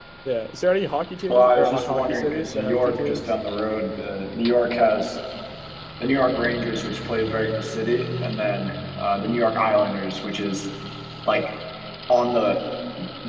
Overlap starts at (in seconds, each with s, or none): 1.3 s